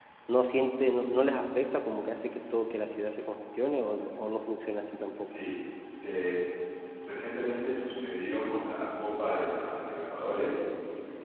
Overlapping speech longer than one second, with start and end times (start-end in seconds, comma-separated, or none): none